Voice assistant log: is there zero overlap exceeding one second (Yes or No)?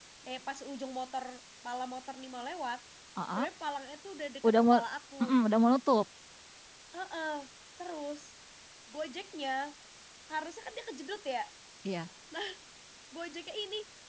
Yes